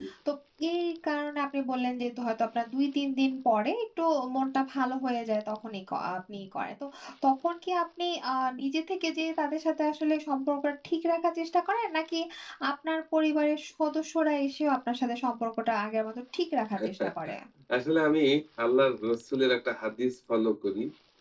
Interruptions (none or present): none